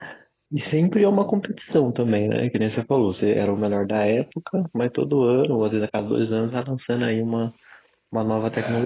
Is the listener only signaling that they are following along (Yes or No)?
No